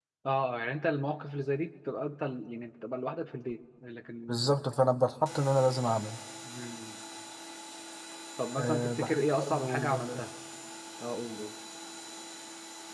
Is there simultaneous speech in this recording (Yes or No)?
Yes